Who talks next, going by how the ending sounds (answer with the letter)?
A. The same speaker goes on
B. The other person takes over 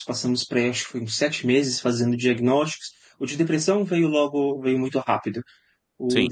A